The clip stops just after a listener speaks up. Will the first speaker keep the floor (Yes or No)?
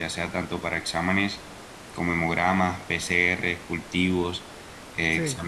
Yes